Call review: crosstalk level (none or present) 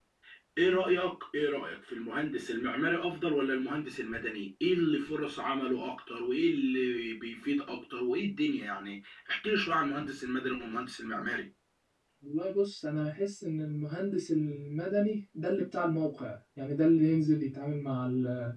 none